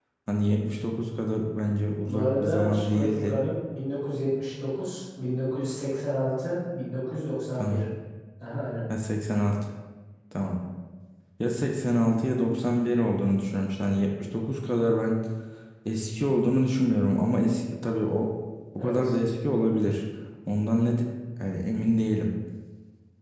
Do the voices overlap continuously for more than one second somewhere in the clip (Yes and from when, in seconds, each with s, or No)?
Yes, from 2.0 s